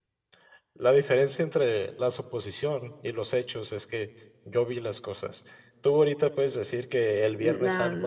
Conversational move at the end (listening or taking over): listening